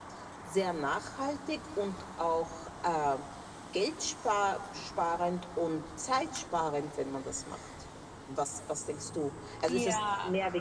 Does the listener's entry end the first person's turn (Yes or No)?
No